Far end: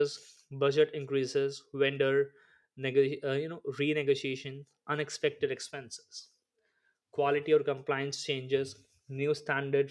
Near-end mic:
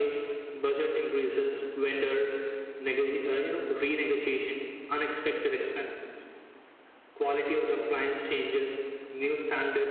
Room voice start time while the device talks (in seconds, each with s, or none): none